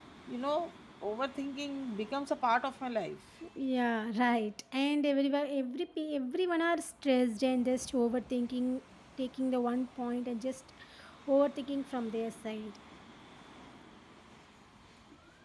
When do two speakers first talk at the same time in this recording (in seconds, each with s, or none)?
none